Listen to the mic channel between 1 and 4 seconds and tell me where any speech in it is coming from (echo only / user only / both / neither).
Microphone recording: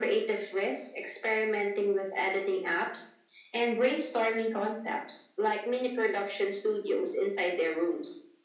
echo only